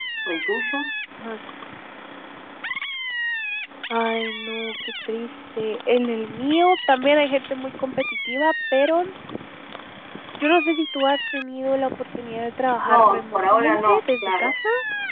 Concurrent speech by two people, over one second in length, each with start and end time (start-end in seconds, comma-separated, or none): 12.8-14.5